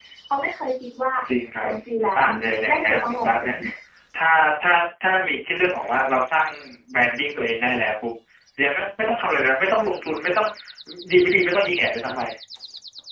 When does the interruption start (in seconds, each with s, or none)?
2.1 s